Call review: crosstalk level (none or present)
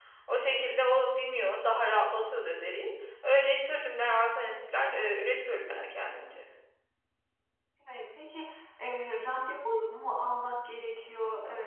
none